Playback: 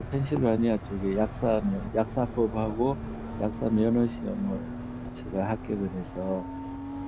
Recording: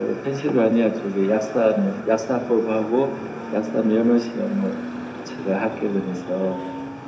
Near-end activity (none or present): none